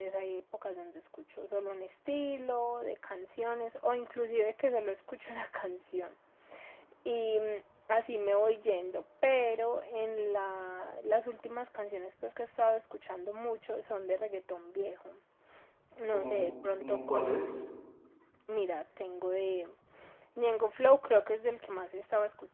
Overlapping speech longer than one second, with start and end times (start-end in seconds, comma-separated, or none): 16.1-17.5